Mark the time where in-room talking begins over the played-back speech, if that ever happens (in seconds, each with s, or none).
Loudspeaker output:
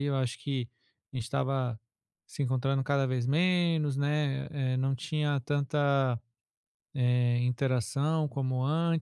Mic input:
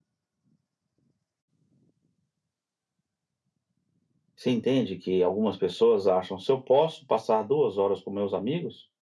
4.4 s